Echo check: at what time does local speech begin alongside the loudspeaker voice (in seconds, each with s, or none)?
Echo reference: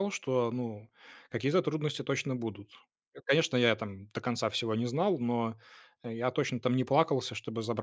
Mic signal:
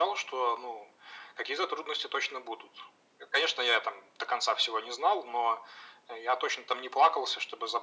none